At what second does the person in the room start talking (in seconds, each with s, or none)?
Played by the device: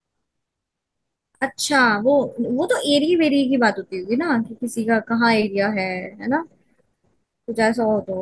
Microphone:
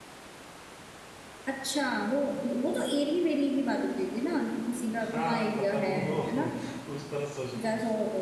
5.0 s